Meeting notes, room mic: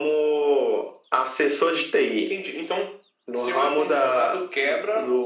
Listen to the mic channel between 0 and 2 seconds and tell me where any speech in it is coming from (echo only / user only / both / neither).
echo only